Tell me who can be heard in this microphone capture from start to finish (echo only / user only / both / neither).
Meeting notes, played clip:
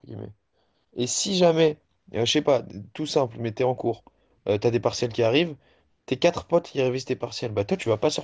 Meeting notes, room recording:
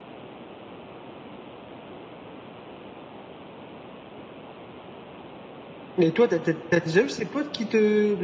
user only